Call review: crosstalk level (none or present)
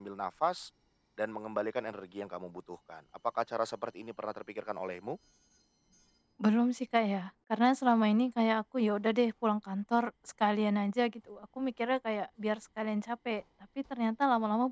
none